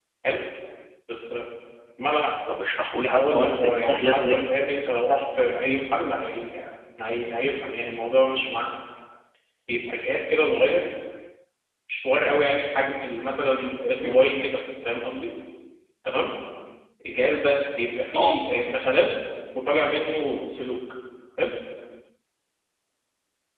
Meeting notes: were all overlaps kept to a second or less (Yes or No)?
No